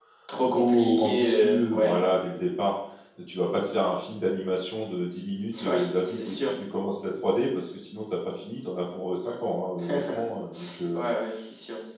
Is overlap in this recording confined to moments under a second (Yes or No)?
No